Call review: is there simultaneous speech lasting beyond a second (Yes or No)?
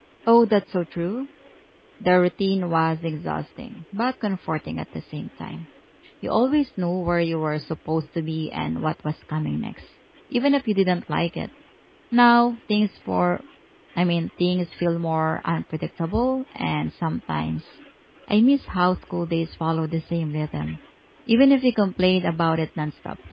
No